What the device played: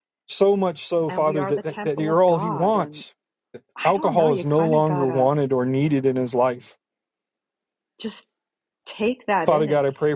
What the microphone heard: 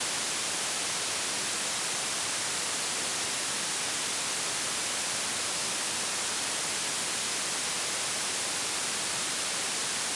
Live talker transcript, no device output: none

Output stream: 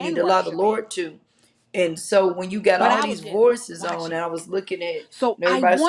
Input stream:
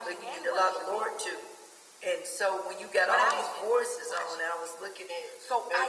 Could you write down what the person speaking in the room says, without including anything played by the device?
none

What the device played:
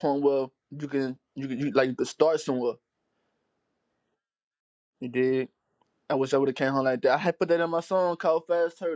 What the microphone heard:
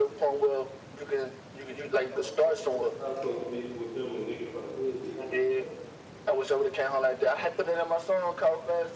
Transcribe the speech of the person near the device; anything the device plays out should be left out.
I don't fuck with niggas. How the fuck we beef with them and niggas from the hood be hanging with them?

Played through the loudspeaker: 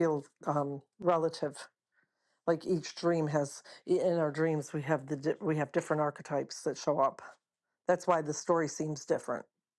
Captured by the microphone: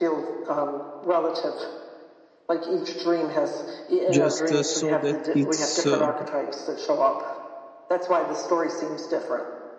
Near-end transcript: just uh, saw that it's uh,

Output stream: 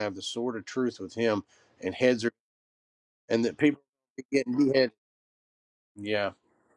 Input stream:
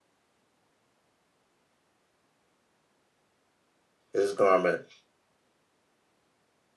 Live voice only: his garment

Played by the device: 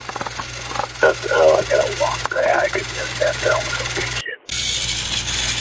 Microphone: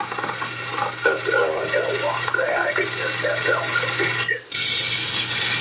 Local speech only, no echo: none

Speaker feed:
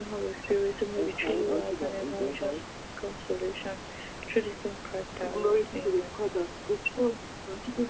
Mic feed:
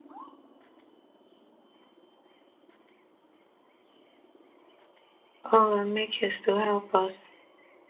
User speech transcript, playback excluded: Oh, and make haste to help us.

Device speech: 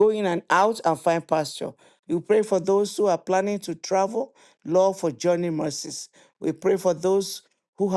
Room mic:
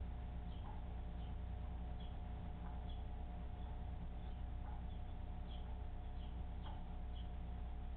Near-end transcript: none

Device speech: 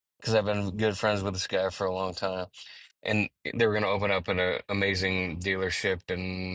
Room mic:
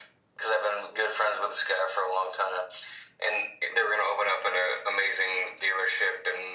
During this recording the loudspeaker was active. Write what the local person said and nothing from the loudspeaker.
none

